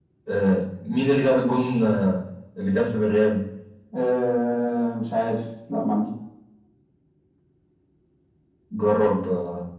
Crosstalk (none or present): none